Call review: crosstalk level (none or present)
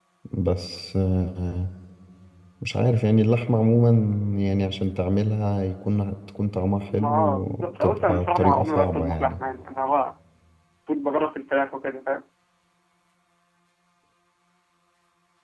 present